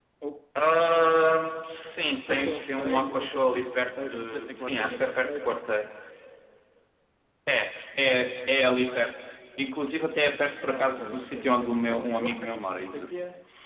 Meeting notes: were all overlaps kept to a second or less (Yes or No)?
No